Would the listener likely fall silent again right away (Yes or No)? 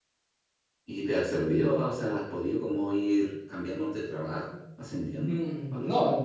No